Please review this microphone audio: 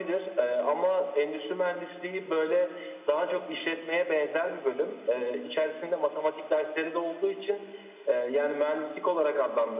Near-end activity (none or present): none